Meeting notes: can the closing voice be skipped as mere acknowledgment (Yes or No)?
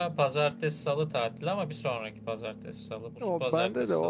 No